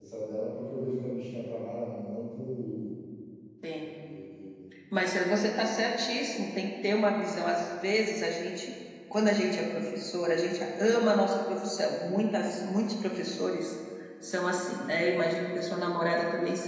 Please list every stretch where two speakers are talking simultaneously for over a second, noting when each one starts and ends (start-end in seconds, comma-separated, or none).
none